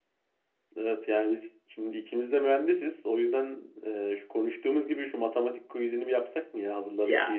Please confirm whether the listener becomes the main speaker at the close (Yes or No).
Yes